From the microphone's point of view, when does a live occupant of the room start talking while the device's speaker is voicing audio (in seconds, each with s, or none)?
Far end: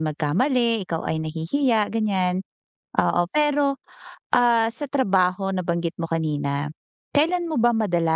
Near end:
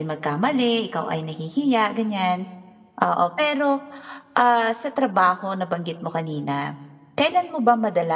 none